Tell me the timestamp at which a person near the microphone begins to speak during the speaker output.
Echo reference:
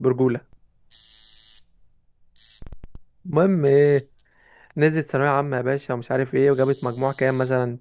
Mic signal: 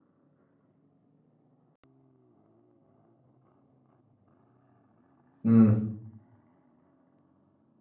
5.4 s

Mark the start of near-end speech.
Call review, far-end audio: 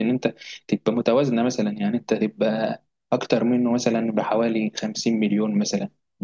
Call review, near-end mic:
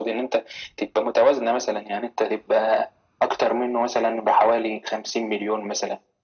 none

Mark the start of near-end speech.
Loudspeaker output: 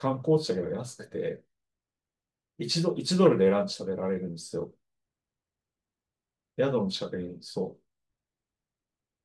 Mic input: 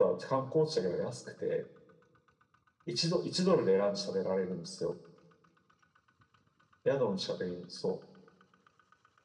none

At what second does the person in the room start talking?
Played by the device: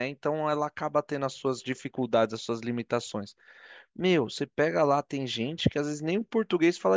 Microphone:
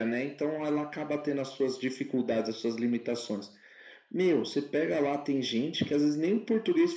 none

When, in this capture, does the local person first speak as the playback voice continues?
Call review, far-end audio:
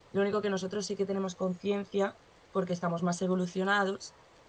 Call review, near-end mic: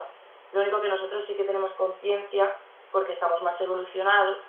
none

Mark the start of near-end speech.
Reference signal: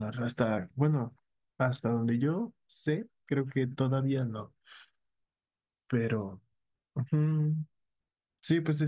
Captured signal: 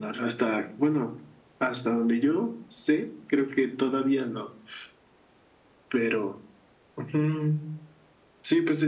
none

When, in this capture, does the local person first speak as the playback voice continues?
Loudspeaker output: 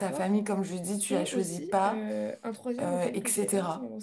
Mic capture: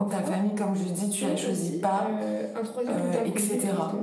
2.8 s

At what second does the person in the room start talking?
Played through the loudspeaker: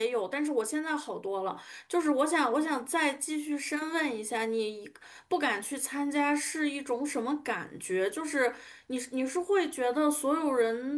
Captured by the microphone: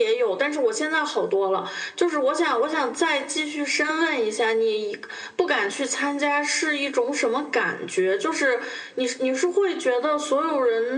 none

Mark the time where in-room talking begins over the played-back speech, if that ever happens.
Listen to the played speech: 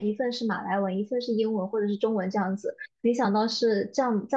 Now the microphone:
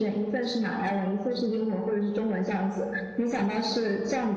none

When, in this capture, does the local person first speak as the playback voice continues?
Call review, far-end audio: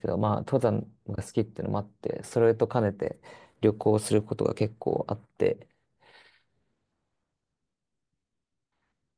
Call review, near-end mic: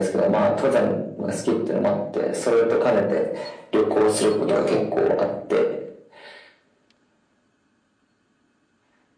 4.5 s

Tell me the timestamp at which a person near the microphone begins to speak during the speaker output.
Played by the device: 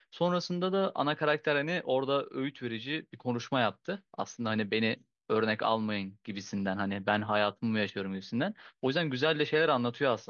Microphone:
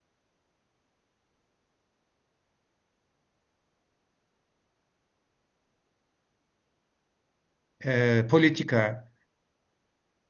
7.8 s

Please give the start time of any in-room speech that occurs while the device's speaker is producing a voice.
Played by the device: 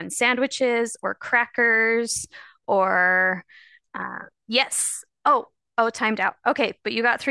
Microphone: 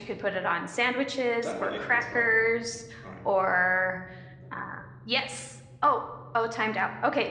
1.4 s

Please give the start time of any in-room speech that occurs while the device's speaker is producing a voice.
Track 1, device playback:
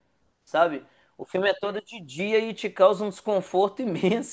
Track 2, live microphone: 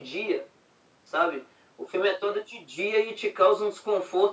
none

